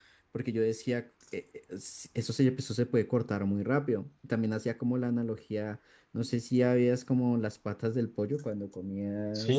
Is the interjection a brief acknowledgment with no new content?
No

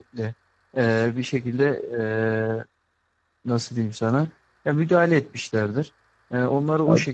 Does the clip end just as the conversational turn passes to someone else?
No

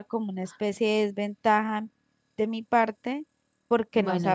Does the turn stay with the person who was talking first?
Yes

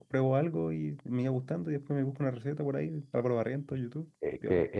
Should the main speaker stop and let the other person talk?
Yes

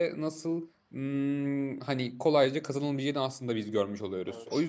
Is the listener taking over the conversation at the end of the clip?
Yes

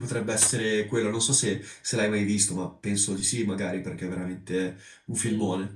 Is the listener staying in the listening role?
No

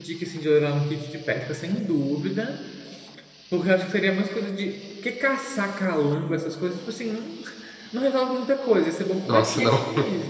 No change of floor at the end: Yes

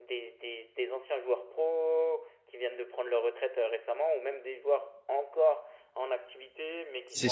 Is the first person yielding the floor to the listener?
No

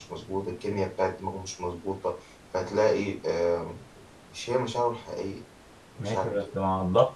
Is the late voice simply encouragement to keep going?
No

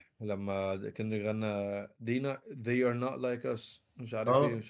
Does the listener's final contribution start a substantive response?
Yes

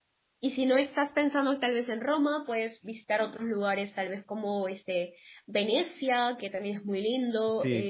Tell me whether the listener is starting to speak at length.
Yes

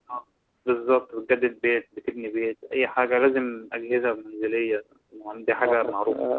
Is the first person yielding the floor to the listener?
Yes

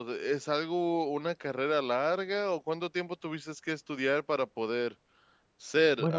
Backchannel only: No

